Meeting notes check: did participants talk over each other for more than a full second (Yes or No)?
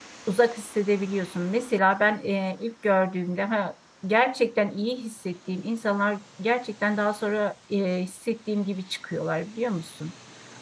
No